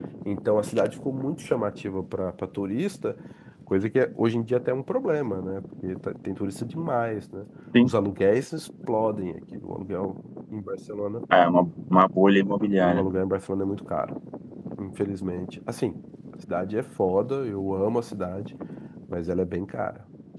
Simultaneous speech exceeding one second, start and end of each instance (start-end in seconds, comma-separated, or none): none